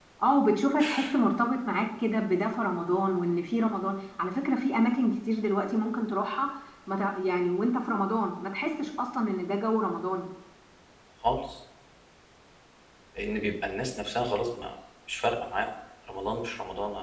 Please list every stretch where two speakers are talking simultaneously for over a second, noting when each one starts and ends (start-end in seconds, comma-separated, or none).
none